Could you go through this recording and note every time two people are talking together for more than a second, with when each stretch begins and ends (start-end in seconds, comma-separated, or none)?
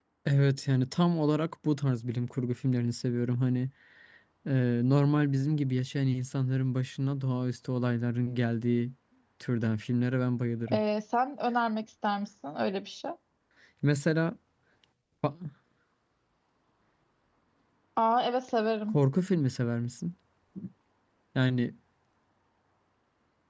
none